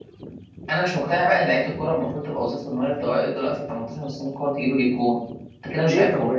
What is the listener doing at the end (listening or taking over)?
taking over